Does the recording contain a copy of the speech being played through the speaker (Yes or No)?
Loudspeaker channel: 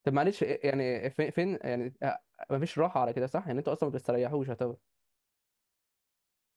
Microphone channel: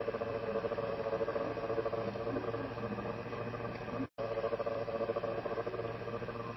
No